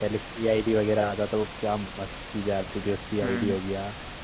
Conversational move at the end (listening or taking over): listening